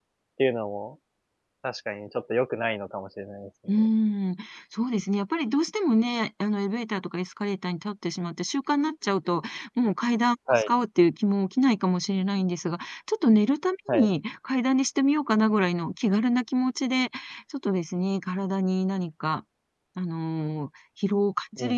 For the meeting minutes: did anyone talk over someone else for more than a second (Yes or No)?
No